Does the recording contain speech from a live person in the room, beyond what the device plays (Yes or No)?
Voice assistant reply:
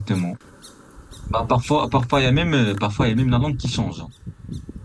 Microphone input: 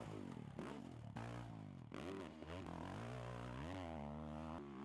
No